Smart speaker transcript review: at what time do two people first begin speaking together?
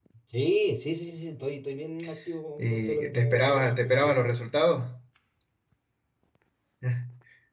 2.6 s

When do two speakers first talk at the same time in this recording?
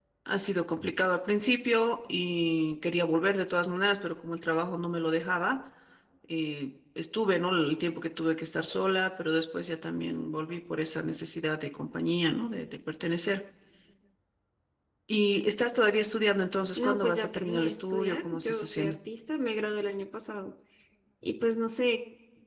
16.8 s

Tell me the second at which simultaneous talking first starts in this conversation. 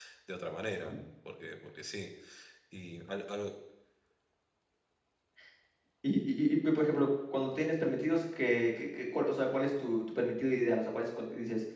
none

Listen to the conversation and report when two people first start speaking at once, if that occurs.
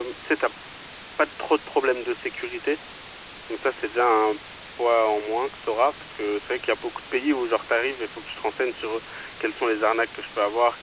none

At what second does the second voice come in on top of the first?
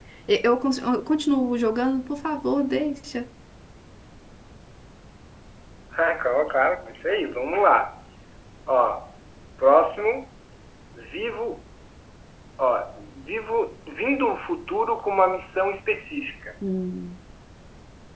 none

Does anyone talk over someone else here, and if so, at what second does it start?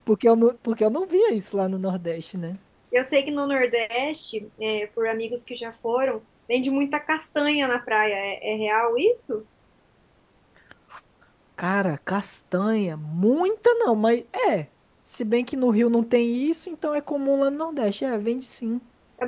none

